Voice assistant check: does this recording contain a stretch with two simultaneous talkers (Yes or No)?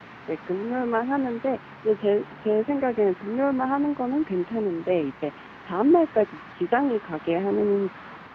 No